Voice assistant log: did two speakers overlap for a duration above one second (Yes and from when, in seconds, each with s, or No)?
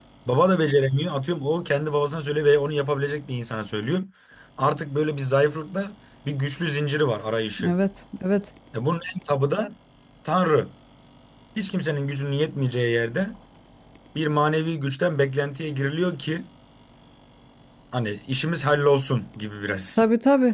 No